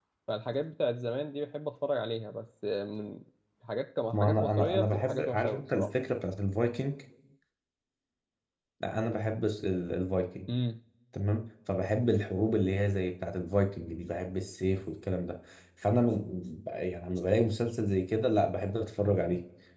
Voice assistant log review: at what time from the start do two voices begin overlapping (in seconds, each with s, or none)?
4.1 s